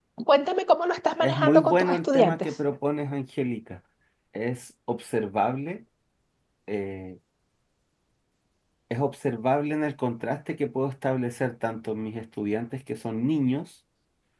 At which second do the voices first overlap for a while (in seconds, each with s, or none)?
1.2 s